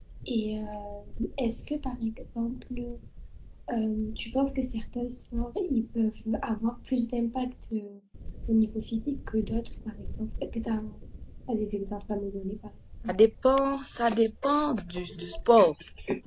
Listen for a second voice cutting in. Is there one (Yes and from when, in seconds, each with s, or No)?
No